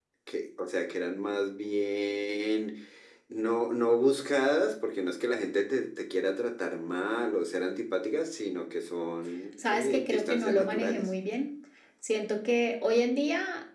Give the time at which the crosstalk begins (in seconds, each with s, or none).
9.6 s